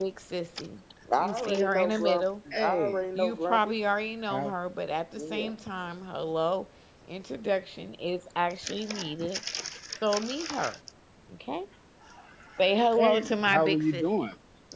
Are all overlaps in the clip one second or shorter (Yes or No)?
No